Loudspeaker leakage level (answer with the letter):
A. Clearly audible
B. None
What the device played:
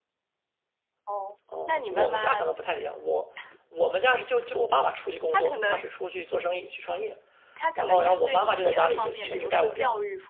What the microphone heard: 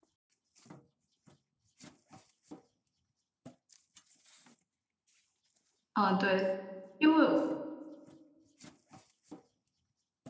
B